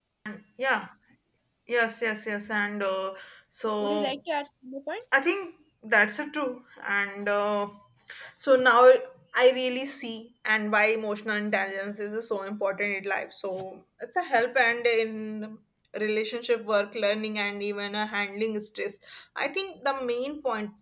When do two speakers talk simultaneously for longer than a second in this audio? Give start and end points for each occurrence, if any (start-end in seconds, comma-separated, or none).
none